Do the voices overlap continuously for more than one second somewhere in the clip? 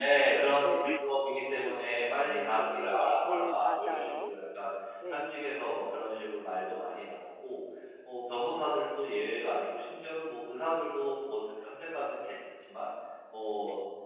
Yes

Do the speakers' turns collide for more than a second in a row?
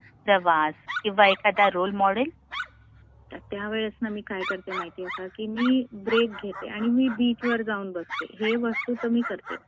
No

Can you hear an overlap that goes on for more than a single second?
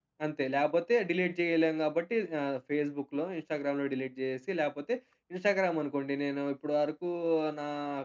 No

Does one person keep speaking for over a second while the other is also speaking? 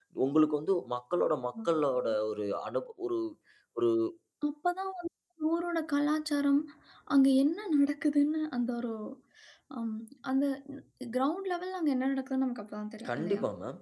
No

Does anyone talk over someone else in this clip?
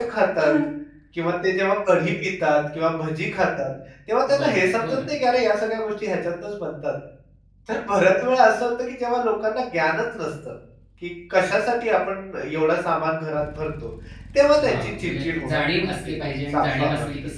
Yes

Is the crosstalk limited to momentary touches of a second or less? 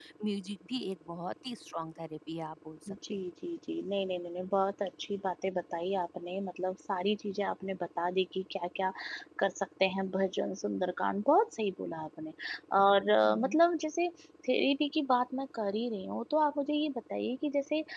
Yes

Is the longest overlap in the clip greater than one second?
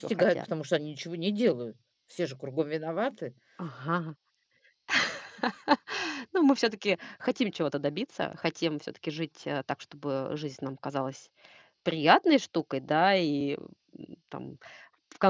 No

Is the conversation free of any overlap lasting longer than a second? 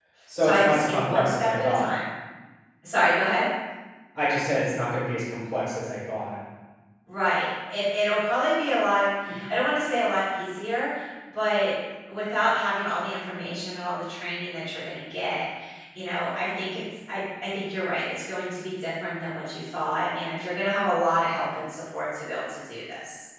No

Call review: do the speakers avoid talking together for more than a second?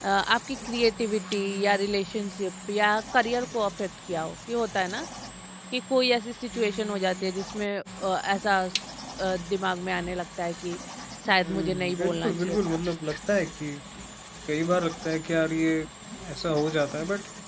No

